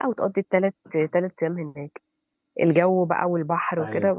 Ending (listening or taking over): listening